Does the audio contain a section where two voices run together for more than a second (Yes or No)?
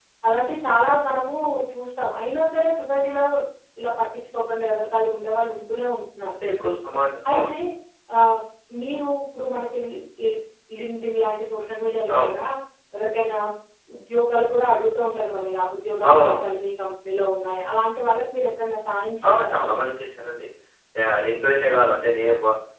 No